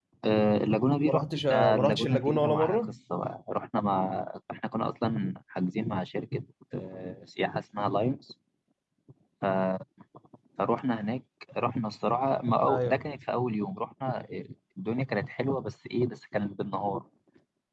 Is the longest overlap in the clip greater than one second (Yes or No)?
Yes